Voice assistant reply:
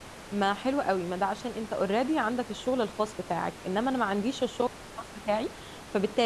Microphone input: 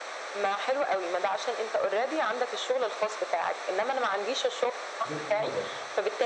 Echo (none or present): present